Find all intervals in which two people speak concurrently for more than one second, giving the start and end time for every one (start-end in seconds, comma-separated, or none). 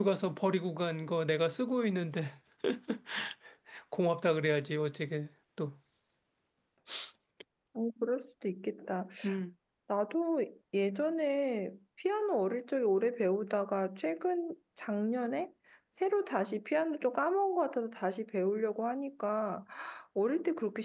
none